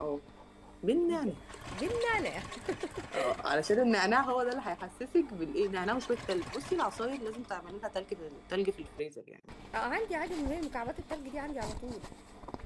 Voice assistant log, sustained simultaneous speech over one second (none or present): none